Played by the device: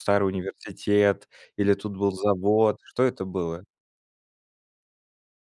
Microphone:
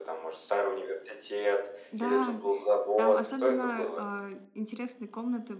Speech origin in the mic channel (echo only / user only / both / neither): both